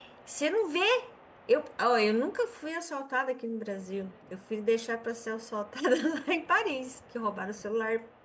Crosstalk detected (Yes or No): No